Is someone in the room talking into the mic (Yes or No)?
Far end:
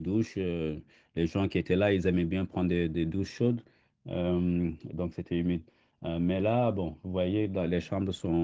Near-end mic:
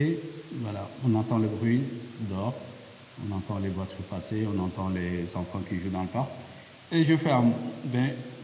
Yes